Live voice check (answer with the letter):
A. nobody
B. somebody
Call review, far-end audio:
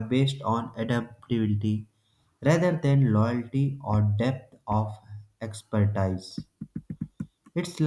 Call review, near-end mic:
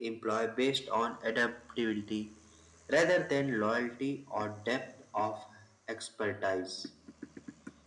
A